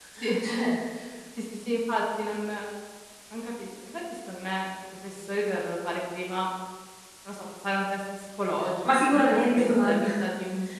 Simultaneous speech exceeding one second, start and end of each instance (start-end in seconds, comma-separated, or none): 8.8-10.1